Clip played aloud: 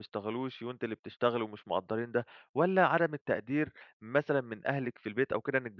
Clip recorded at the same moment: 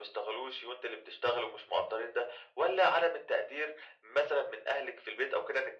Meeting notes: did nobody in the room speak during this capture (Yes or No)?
Yes